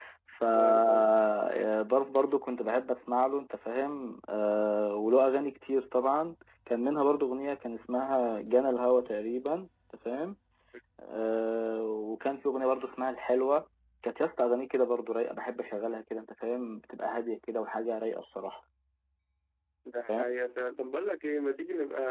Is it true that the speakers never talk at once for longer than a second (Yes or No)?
Yes